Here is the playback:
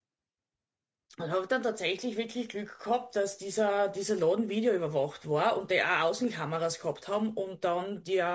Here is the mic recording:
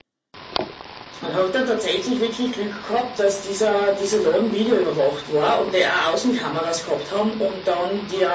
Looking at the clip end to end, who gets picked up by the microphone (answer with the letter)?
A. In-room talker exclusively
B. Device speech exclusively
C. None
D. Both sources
B